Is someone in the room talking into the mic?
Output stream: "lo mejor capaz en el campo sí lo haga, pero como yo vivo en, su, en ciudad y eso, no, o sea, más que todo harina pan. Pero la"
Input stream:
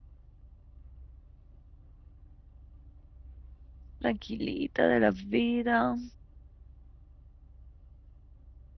Yes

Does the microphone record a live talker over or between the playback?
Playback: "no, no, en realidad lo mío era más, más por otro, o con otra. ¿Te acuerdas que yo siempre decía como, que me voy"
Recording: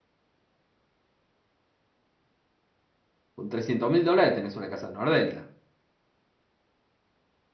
Yes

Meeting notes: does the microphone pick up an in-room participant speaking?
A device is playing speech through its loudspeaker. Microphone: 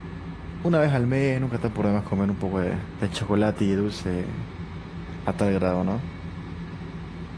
Yes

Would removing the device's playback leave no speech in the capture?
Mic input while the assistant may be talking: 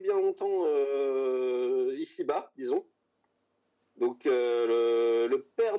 Yes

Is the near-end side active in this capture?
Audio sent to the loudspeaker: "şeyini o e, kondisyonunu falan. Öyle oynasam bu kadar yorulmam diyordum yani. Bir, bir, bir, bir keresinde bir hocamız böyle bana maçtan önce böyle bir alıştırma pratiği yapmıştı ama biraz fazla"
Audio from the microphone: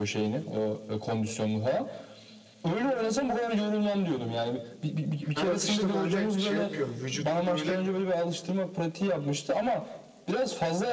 Yes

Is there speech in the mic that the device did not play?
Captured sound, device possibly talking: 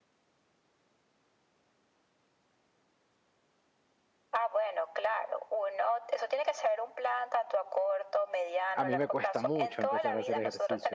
Yes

